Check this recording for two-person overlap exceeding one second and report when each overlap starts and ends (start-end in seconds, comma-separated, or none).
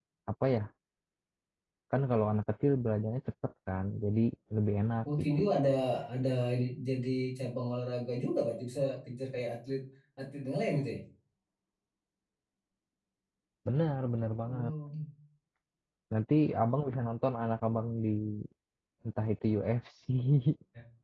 none